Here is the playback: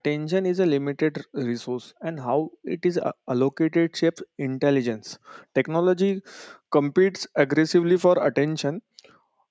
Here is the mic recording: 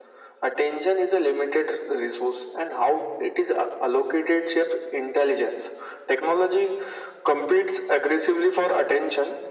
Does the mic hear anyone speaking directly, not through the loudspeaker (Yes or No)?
No